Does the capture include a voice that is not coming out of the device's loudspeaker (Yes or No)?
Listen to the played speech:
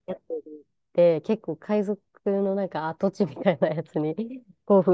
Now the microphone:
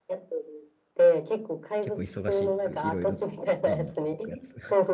Yes